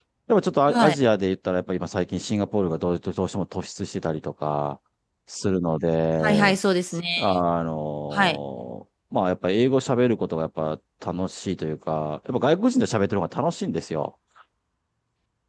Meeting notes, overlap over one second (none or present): none